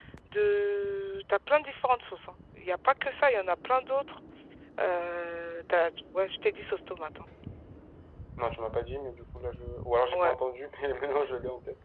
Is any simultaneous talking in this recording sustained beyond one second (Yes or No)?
No